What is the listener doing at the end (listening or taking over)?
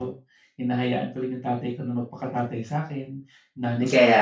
listening